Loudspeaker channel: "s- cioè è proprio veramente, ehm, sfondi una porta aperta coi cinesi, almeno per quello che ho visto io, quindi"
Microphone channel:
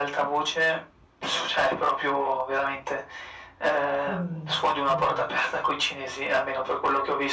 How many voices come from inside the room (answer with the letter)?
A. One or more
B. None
A